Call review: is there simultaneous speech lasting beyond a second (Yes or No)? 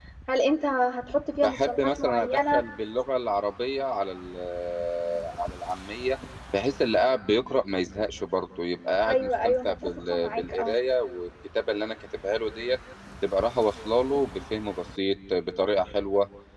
Yes